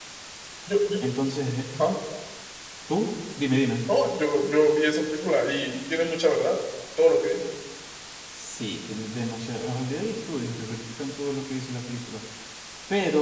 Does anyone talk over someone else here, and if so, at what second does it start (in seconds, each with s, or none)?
none